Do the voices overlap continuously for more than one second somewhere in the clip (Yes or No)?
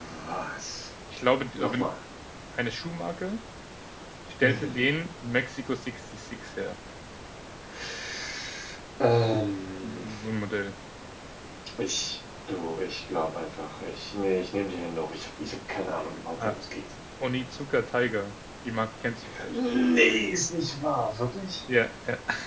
No